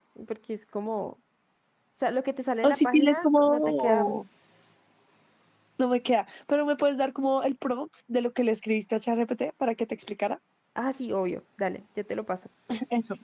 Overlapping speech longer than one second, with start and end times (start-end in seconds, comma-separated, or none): 2.6-4.1